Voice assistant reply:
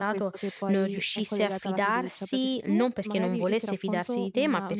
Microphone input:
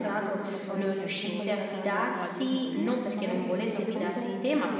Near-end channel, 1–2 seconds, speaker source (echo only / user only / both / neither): both